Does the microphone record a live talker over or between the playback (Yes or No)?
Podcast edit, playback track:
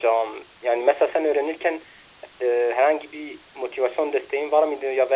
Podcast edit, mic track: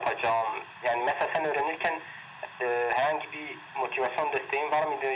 No